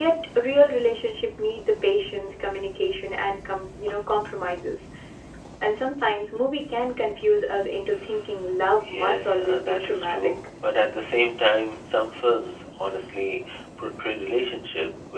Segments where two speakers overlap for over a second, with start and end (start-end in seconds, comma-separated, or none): 8.9-10.3